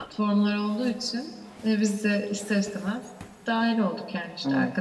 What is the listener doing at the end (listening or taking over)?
listening